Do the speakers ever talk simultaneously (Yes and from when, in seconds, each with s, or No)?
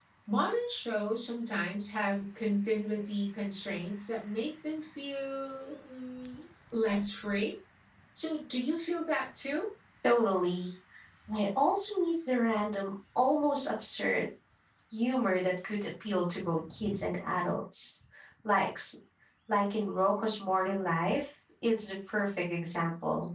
No